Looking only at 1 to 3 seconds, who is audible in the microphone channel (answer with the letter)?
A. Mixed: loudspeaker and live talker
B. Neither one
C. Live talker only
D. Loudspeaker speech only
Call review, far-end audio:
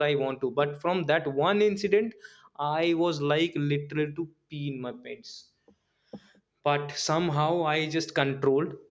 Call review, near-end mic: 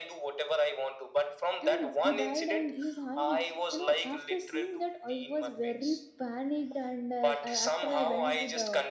A